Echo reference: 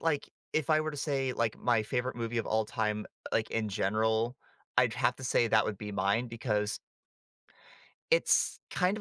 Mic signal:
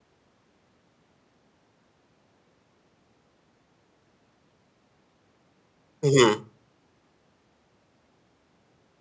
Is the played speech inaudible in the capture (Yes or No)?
Yes